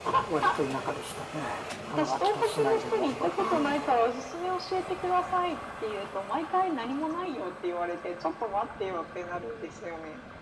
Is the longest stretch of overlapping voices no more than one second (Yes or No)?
No